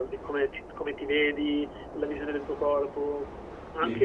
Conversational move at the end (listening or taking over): listening